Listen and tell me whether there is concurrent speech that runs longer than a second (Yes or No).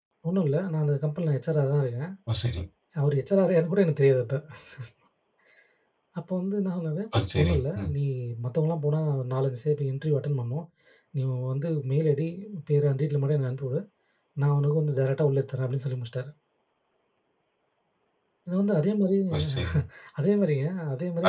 No